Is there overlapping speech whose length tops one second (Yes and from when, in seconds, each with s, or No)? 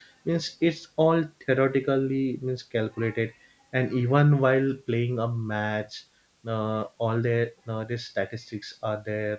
No